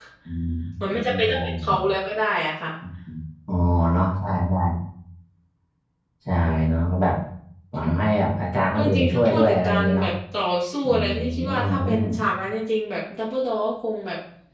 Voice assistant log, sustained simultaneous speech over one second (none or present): present